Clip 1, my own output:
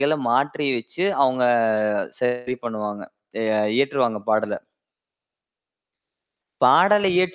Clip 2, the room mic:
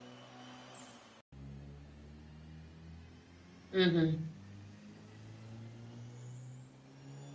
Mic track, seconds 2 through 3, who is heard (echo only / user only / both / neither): neither